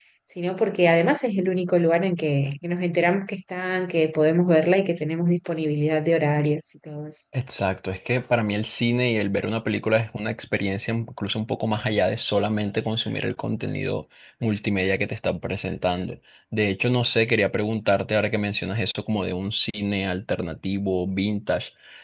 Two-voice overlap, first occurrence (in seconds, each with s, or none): none